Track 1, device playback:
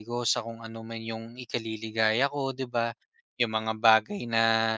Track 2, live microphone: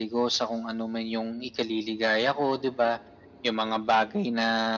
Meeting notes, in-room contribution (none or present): none